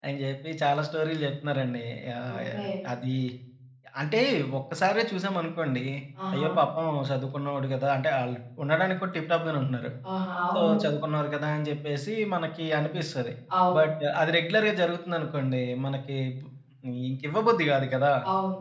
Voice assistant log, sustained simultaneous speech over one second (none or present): none